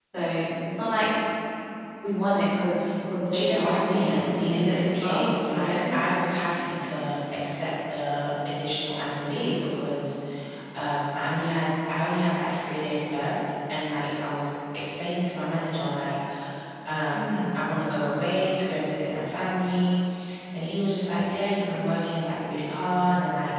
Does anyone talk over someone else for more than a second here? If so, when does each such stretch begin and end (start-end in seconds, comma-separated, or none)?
3.3-6.0